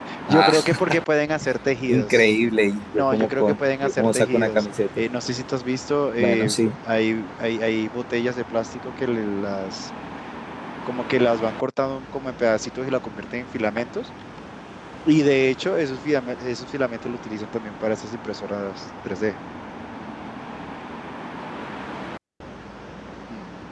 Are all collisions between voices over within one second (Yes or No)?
No